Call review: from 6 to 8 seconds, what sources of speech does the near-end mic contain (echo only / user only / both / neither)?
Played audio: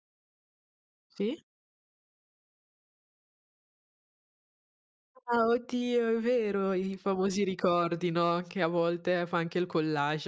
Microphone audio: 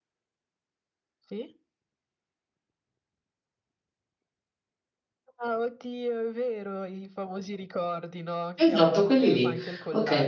echo only